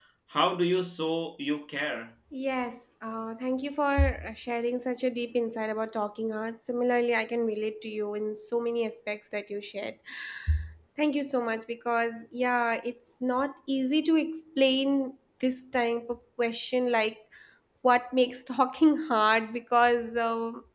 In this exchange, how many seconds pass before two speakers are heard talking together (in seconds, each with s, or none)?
none